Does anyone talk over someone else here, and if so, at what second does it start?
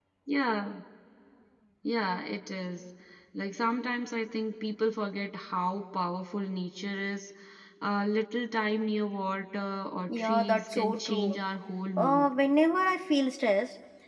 10 s

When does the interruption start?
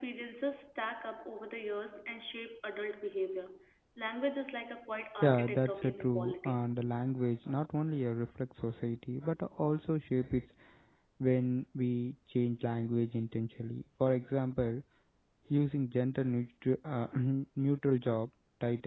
5 s

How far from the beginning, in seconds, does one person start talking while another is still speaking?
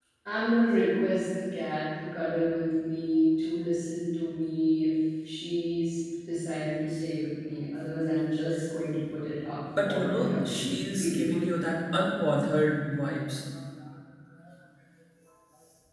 10 s

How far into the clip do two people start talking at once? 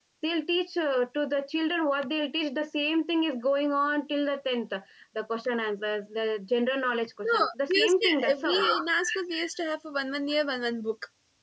7 s

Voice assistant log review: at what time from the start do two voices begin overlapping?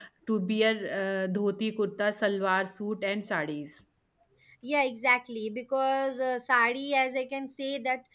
none

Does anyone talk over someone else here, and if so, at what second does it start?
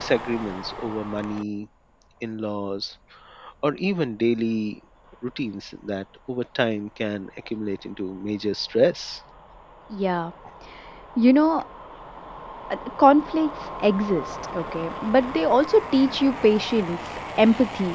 none

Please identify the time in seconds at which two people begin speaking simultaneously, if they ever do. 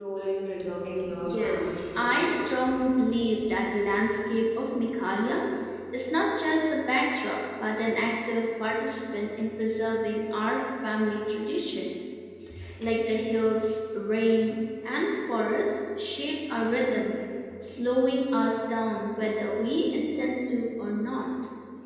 1 s

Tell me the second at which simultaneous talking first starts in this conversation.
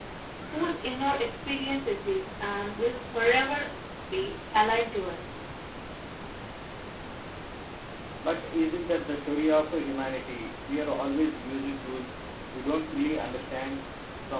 none

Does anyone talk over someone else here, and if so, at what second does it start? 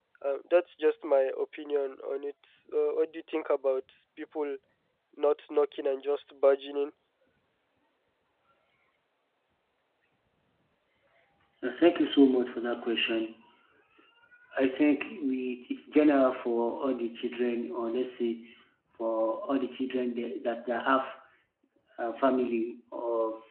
none

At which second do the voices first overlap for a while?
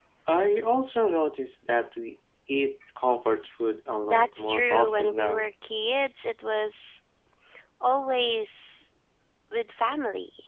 4 s

